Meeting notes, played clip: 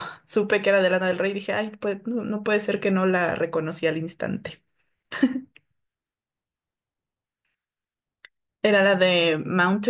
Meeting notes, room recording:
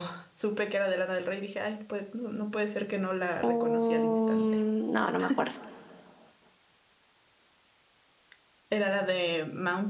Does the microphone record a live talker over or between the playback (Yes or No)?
Yes